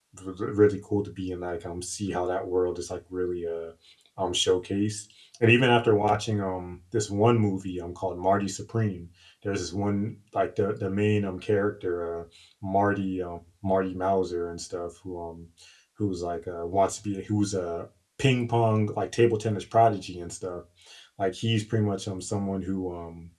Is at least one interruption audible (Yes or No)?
No